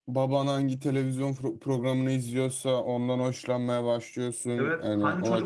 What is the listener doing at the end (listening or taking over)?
taking over